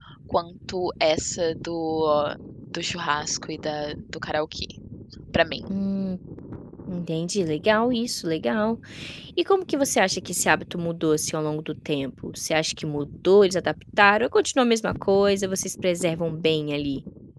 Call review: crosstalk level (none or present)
none